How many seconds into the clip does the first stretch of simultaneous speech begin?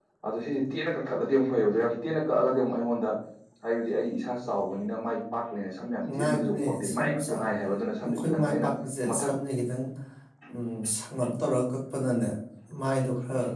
6.0 s

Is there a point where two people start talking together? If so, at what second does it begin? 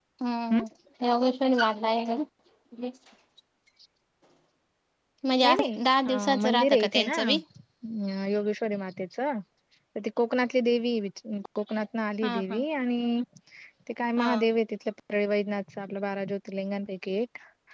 5.4 s

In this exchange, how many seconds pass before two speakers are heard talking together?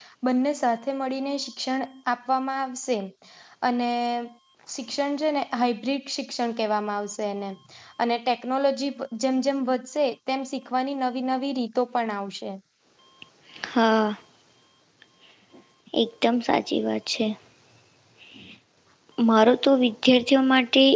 none

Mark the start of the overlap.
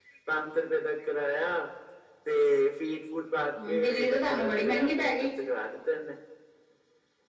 3.6 s

